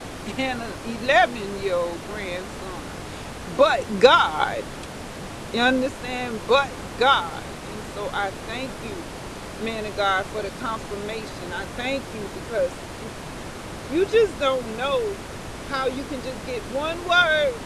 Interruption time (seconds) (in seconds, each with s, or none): none